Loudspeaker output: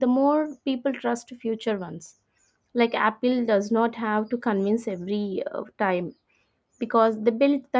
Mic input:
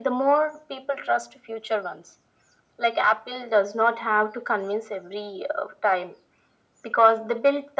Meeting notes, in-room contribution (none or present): none